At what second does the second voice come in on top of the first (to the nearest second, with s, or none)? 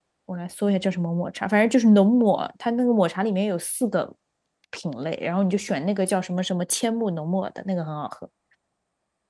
none